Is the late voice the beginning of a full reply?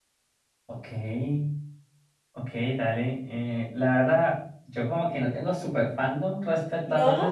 No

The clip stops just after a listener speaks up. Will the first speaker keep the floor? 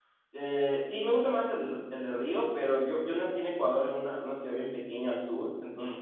Yes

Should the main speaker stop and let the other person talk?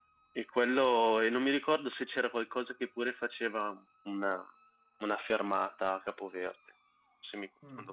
Yes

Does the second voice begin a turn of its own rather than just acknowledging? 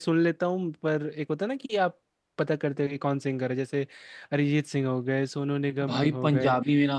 Yes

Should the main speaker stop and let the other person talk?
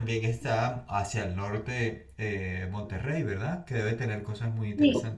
Yes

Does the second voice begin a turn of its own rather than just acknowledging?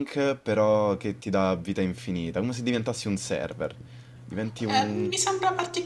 Yes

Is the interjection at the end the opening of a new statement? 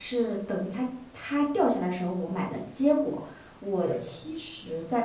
No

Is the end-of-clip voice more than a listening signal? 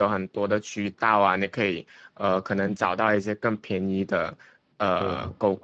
Yes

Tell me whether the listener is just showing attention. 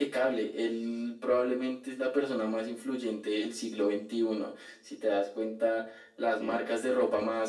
Yes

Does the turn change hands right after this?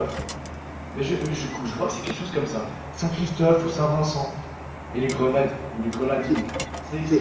Yes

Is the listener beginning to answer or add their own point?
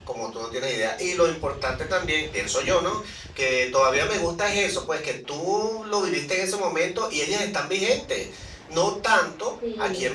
No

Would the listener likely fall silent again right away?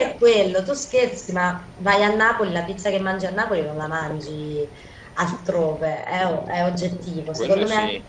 Yes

